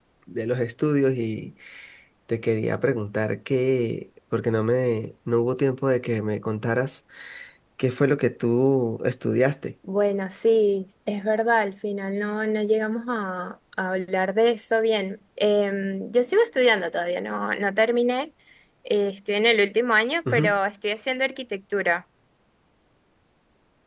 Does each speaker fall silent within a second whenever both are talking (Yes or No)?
Yes